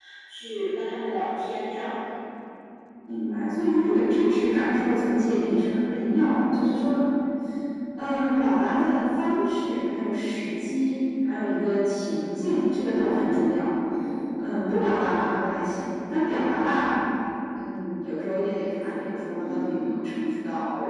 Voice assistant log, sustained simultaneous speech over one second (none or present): none